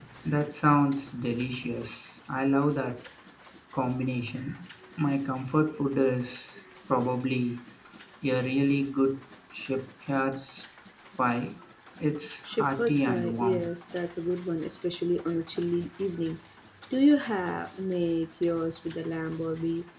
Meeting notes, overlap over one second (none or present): present